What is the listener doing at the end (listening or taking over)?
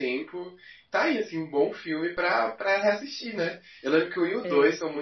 listening